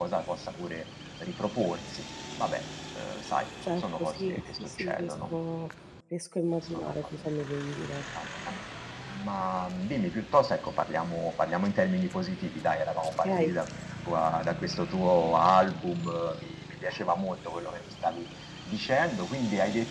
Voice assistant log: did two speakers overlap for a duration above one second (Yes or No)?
Yes